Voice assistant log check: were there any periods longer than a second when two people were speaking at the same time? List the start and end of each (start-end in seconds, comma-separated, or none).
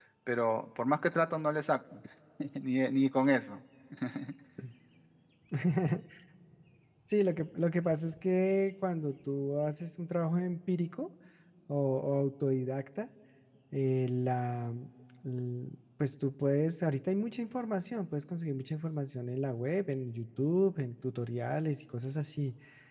none